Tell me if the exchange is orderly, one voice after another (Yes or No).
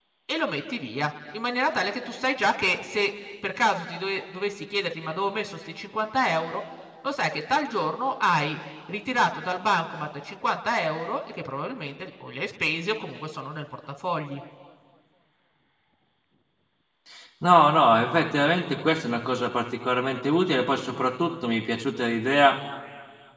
Yes